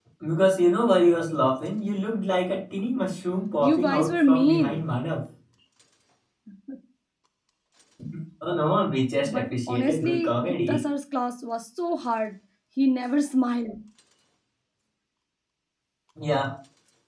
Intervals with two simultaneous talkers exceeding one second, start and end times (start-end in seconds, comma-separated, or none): 3.6-4.9, 9.2-10.8